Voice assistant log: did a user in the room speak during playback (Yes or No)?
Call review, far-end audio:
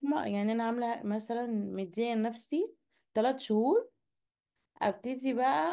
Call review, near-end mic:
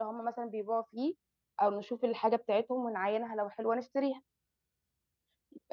Yes